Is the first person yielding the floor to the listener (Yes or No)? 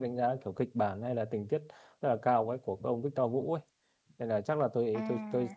No